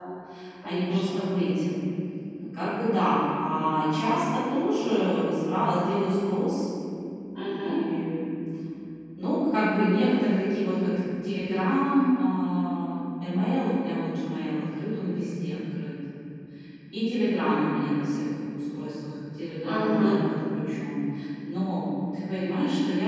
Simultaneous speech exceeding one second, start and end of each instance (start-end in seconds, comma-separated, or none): none